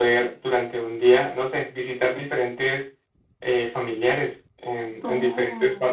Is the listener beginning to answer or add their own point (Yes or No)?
Yes